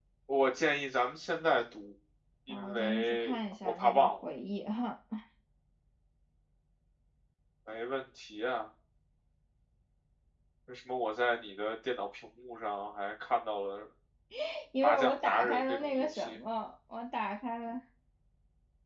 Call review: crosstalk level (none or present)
present